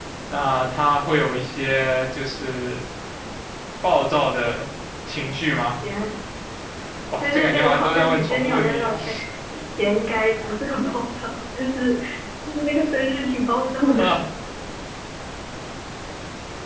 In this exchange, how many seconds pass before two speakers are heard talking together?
7.2 s

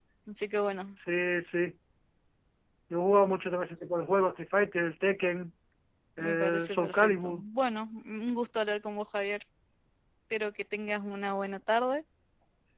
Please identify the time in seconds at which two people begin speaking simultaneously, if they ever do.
6.2 s

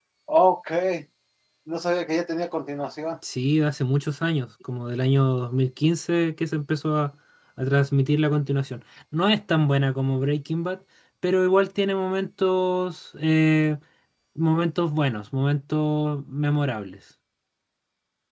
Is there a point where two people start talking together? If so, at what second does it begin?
none

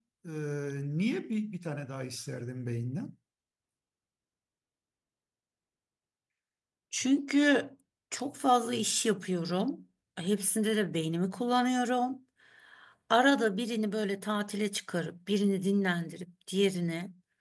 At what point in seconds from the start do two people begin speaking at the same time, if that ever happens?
none

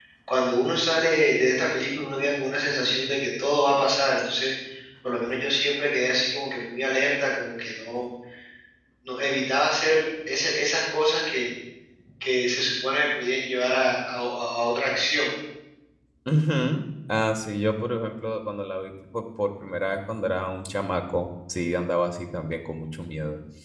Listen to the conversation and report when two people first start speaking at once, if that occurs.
none

